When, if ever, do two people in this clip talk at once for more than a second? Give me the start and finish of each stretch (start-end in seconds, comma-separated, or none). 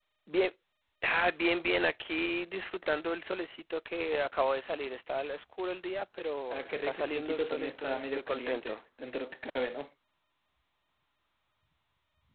6.5-8.8